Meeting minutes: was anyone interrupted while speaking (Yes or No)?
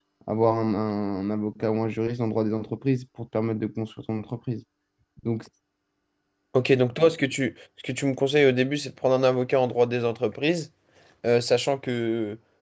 No